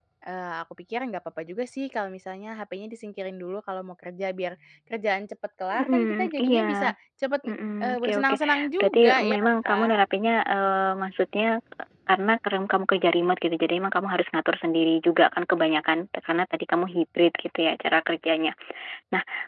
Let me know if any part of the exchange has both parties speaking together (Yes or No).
Yes